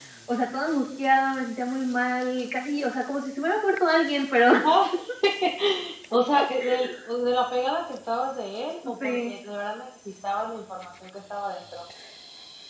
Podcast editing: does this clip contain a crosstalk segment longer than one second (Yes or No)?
No